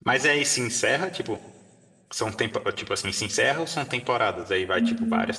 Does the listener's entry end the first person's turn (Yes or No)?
Yes